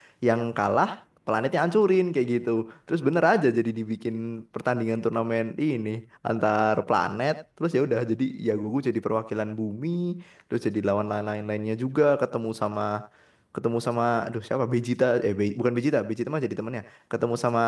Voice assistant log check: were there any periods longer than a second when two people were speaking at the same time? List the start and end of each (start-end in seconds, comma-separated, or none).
none